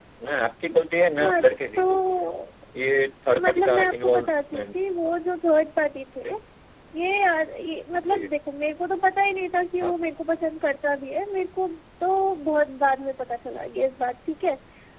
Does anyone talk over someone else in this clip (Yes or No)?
Yes